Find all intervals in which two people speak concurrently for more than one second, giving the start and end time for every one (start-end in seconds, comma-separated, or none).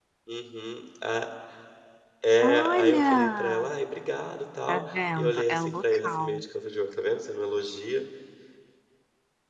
2.4-3.7, 4.7-6.4